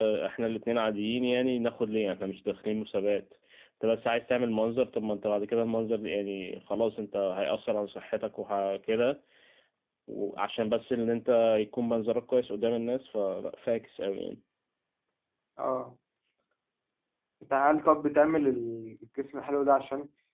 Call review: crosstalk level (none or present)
none